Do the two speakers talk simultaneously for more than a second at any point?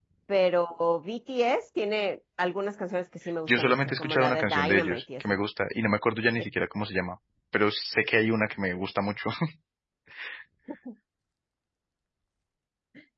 Yes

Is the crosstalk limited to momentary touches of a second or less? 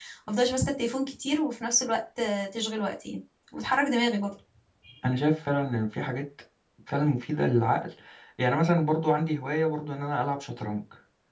Yes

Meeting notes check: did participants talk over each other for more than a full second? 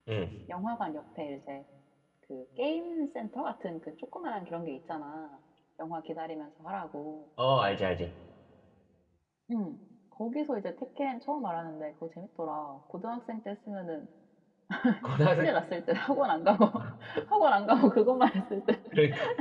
No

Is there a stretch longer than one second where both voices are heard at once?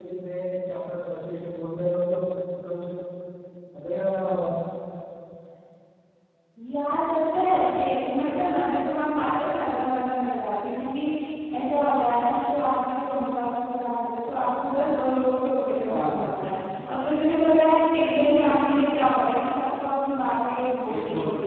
No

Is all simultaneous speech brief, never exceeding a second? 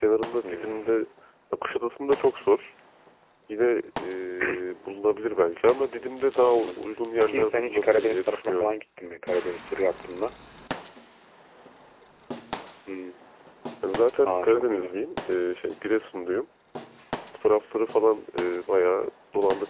No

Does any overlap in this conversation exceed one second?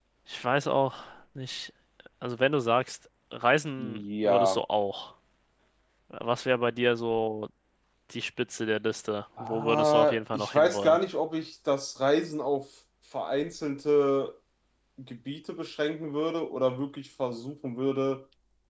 Yes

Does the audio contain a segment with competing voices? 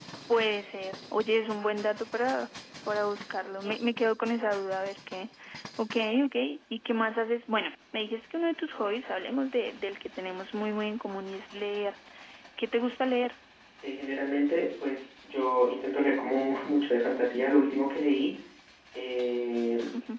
No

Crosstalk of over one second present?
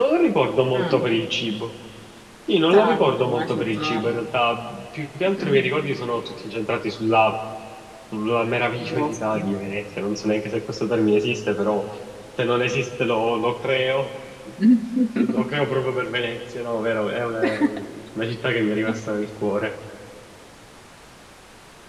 Yes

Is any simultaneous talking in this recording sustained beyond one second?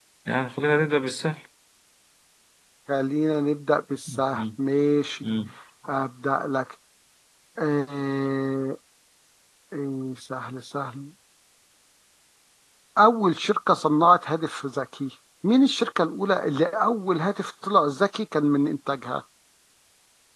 No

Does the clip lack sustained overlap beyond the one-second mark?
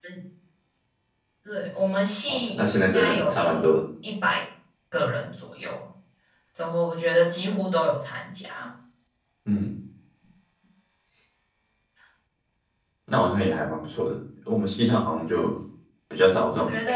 No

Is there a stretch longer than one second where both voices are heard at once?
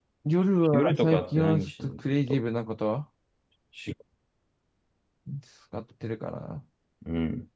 Yes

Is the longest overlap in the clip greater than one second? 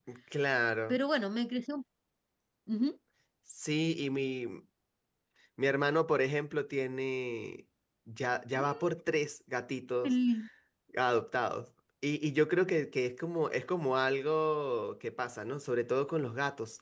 No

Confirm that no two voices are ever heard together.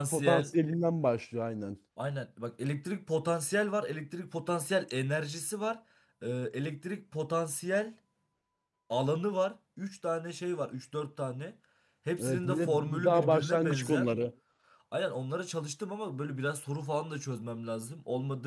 No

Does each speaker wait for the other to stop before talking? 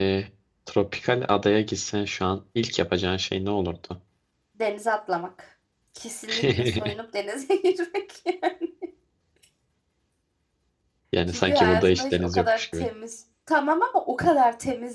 No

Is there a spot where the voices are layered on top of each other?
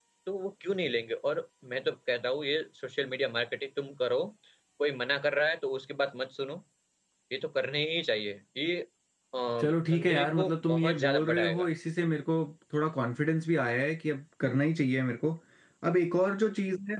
Yes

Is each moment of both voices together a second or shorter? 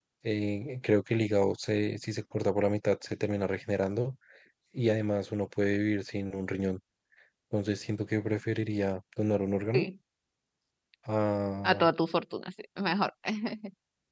Yes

